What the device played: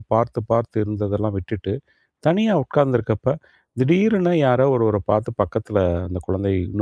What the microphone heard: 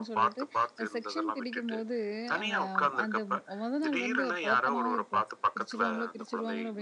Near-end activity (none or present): present